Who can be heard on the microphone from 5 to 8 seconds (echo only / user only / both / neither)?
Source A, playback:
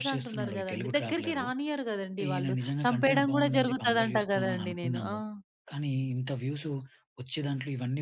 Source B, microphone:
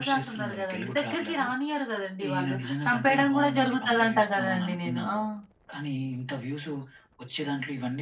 echo only